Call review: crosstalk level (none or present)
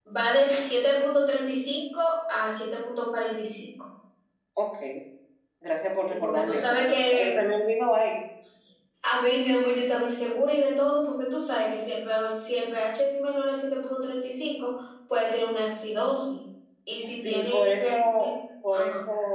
present